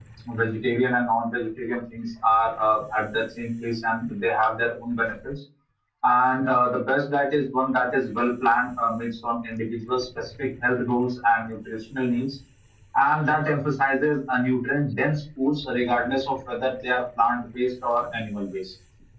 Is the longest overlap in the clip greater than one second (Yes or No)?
No